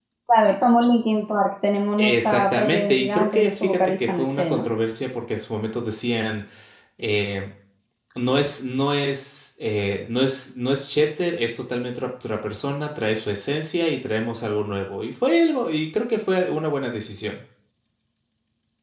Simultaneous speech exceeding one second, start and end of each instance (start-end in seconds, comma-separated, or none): 2.0-4.7